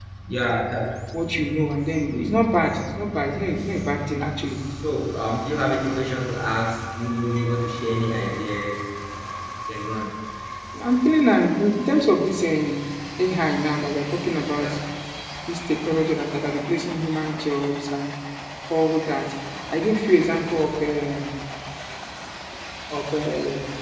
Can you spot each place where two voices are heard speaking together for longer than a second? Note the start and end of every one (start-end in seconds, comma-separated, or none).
none